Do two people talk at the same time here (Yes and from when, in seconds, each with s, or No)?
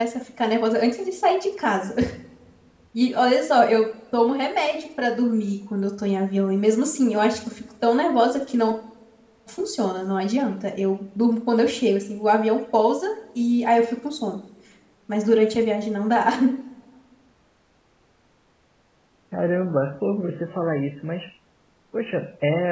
No